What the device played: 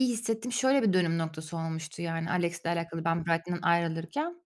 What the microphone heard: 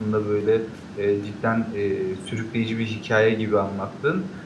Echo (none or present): none